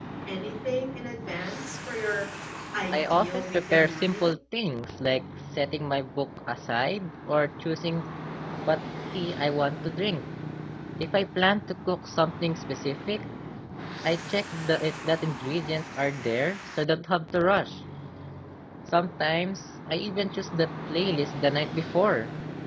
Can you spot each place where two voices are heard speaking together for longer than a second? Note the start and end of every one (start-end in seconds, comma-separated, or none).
2.9-4.3